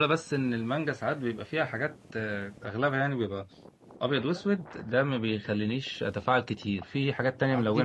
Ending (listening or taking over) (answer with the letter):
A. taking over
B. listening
A